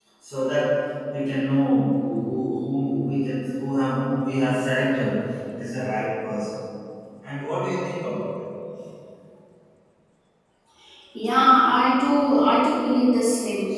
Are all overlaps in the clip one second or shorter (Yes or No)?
Yes